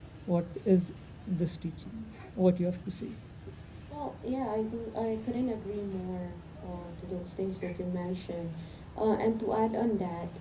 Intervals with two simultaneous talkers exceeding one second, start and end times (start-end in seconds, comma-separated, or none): none